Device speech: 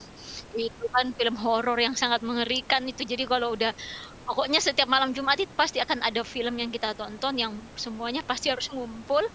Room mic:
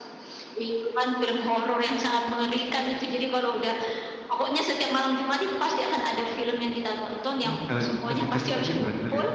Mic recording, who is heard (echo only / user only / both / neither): both